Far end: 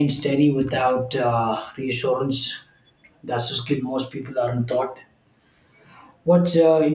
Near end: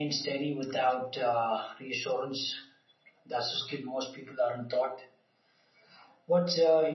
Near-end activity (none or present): none